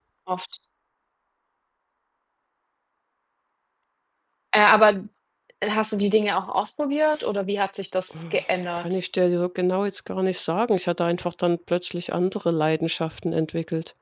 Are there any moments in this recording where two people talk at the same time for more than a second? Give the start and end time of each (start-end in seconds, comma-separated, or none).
none